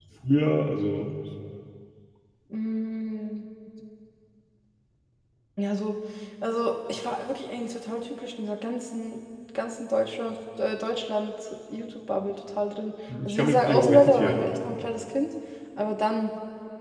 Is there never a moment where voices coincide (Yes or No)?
No